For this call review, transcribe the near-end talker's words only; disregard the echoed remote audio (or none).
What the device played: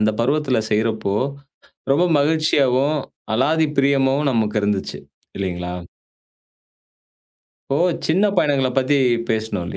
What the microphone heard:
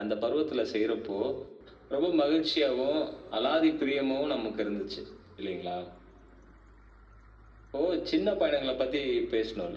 none